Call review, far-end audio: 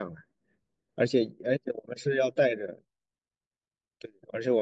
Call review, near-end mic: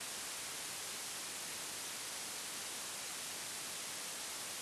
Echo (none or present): none